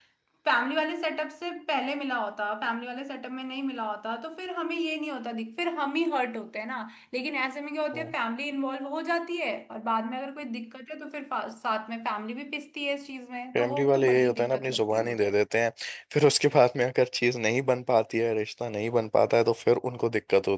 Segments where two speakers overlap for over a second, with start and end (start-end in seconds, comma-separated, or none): 13.6-15.3